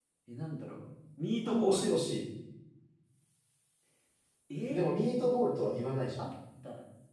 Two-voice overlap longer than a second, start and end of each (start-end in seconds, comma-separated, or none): none